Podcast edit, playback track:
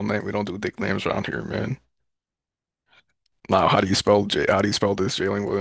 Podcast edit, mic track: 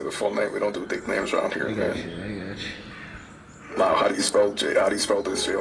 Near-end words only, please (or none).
I got you. I got you.